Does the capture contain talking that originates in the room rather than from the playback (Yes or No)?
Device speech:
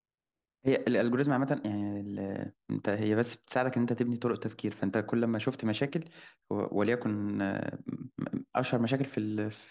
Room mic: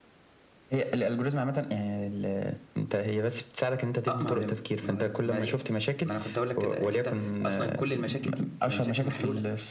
Yes